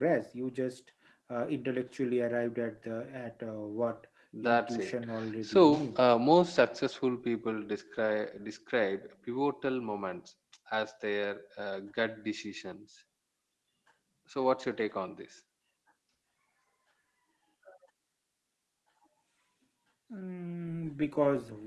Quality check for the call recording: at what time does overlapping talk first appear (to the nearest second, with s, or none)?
4 s